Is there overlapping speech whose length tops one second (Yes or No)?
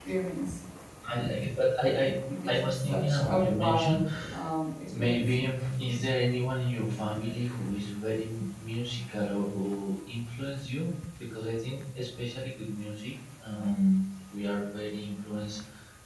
Yes